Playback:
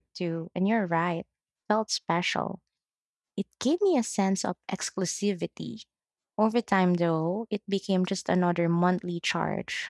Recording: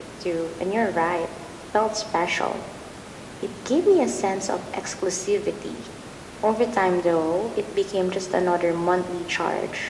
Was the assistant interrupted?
No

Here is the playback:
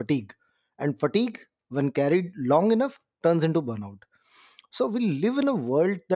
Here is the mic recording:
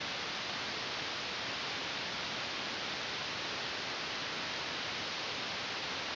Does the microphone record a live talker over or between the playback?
No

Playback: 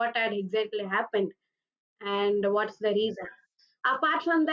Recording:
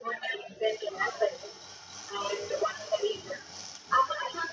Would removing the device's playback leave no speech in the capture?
Yes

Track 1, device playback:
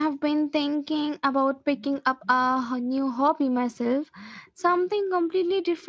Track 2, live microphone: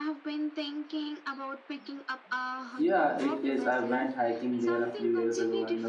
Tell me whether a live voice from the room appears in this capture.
Yes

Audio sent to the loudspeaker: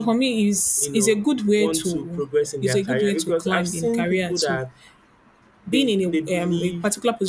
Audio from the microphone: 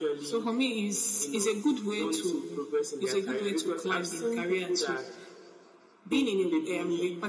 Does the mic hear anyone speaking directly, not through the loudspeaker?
No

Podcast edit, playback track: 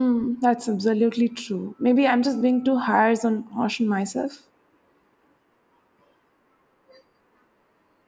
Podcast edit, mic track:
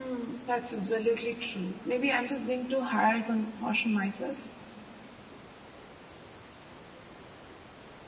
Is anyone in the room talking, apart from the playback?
No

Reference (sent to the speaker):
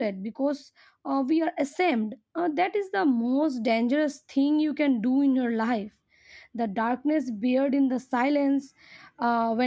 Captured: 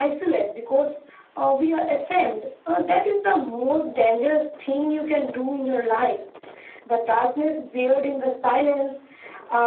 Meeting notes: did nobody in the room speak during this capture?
Yes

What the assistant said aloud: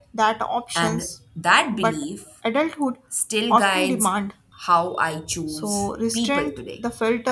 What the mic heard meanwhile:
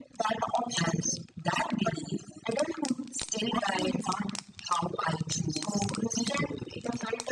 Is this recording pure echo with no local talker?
Yes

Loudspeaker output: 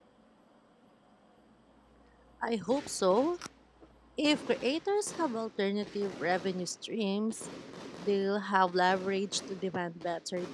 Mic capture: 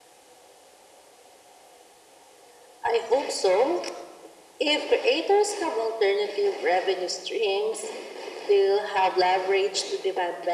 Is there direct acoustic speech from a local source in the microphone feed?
No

